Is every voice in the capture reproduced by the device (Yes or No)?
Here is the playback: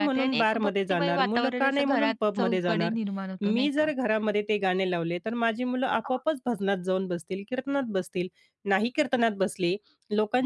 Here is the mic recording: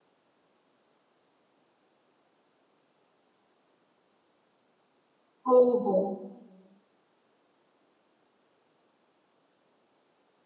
No